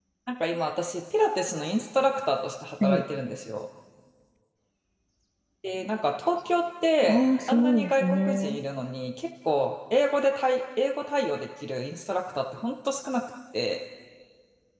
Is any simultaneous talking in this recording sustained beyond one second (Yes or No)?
Yes